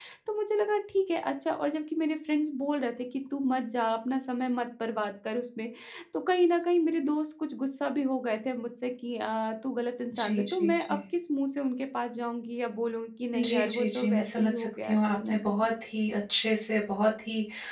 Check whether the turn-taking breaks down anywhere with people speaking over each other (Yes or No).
Yes